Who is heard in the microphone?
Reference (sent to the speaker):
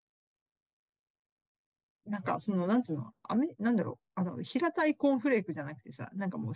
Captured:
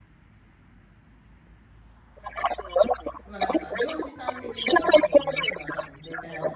both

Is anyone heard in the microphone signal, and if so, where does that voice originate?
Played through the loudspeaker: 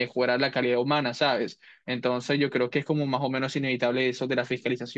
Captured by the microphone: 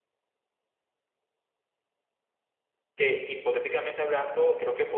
user only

